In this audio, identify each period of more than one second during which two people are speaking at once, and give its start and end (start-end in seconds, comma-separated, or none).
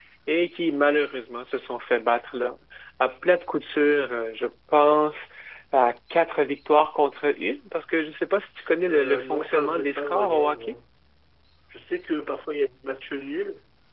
8.9-10.6